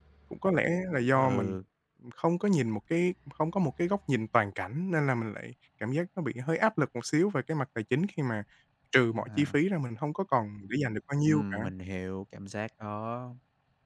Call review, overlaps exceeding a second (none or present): none